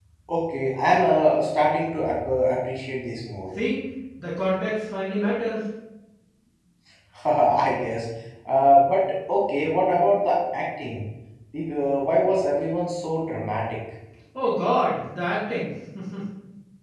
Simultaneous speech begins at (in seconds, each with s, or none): none